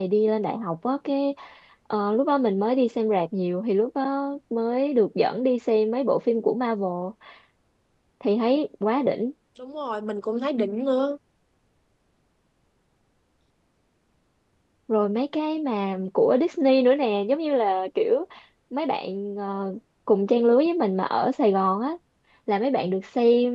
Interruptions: none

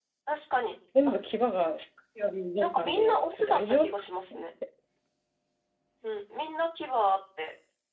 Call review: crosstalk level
present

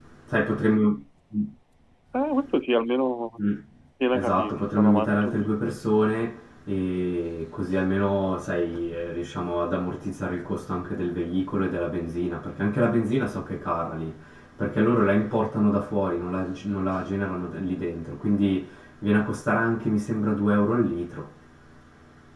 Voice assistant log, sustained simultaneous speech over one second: present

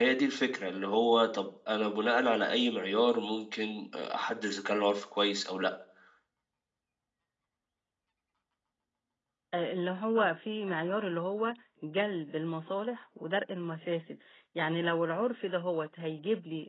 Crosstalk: none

